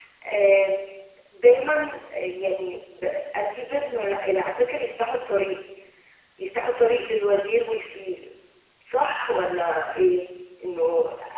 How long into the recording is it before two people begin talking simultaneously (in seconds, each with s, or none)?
none